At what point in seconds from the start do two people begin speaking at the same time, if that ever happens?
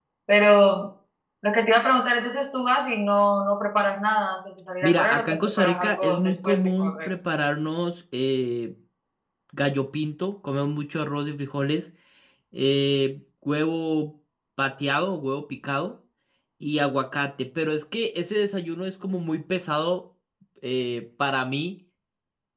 4.8 s

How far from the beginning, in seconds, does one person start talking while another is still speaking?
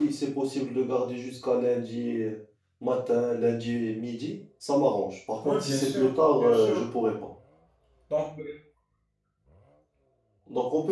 5.4 s

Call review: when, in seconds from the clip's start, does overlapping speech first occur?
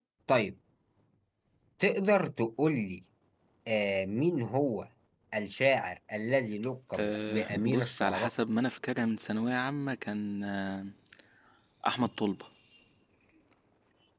6.9 s

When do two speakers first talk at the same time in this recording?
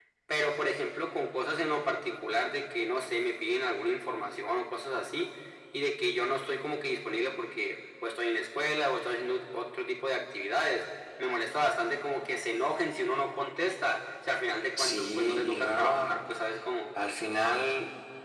14.8 s

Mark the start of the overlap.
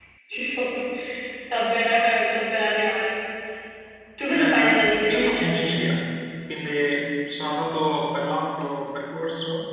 4.3 s

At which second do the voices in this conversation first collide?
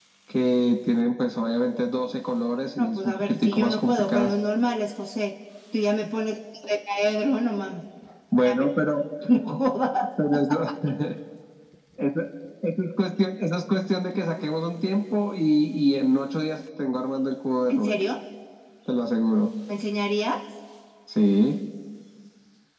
2.8 s

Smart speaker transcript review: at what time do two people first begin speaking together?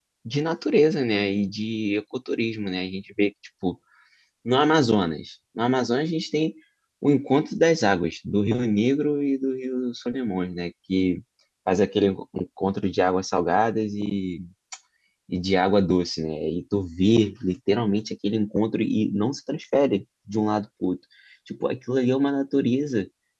none

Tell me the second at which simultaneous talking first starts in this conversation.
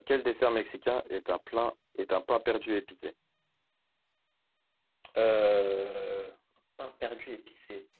none

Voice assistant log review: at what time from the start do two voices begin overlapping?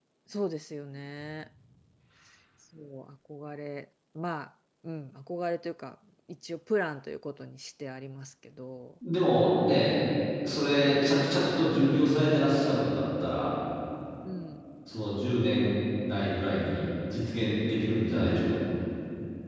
none

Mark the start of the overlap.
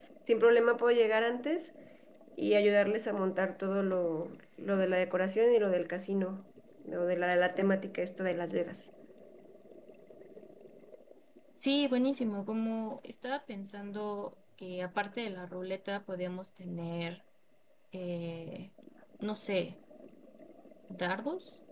none

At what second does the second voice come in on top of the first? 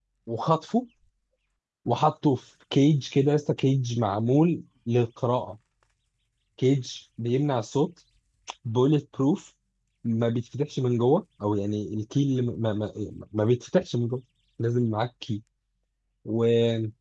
none

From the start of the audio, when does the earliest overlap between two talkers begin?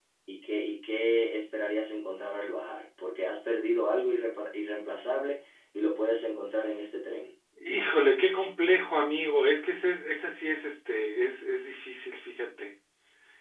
none

